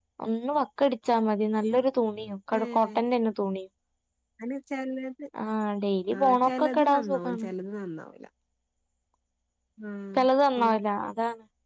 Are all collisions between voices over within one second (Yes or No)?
No